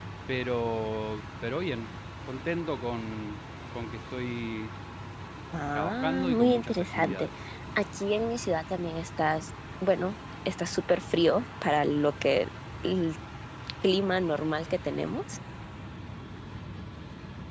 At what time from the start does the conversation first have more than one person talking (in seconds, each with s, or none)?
5.7 s